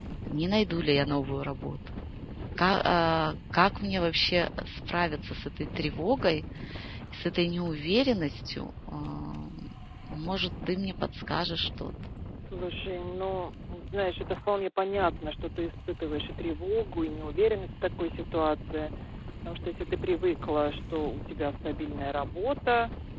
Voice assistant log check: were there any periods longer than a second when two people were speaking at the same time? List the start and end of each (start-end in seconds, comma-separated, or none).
none